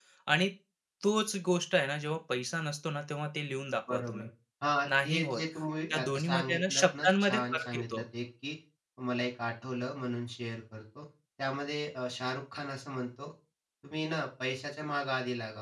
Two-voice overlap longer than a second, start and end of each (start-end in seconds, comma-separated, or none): 5.9-8.1